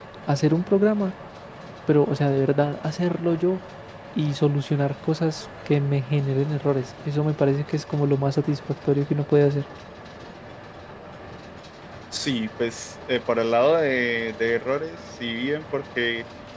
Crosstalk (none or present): none